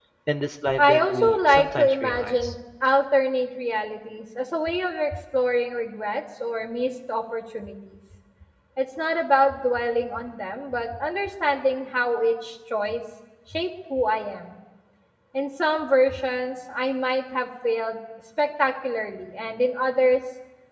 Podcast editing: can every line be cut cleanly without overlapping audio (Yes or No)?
No